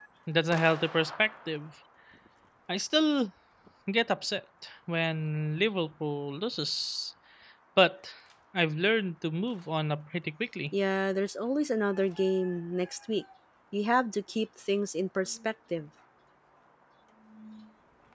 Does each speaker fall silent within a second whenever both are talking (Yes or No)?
Yes